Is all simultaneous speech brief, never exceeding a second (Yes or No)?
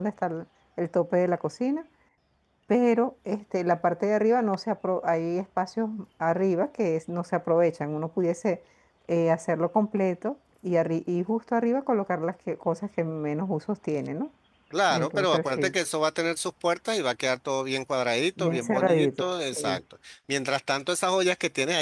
No